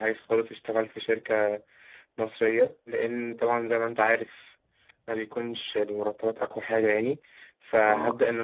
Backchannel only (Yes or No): Yes